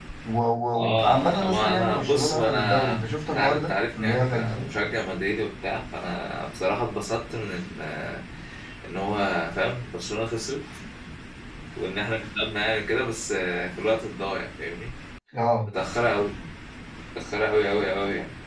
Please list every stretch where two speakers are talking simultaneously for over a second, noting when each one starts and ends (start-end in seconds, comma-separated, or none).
0.7-4.7